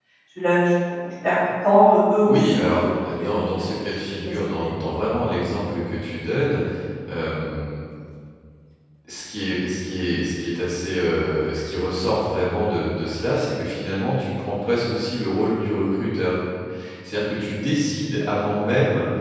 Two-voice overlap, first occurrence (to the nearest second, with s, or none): 2 s